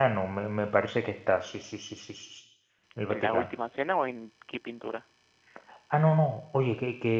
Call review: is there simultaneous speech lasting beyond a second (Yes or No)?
No